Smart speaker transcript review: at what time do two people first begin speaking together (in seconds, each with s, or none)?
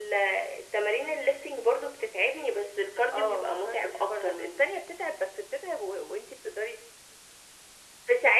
3.1 s